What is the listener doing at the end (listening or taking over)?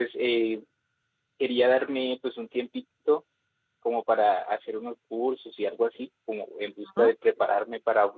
listening